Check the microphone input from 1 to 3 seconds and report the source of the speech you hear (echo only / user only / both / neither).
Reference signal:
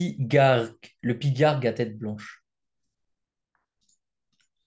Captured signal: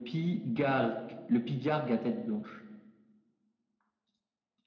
echo only